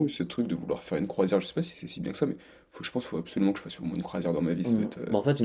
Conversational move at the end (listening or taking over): taking over